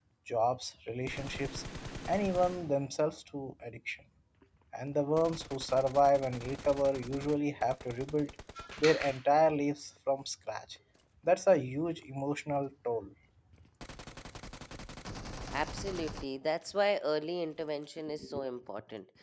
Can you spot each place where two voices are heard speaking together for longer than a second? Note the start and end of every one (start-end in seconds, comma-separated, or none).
none